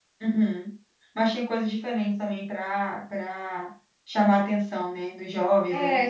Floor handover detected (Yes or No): Yes